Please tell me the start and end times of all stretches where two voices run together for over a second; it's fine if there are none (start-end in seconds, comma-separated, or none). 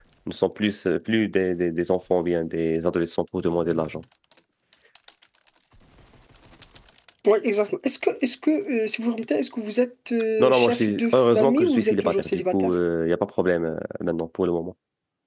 10.4-12.7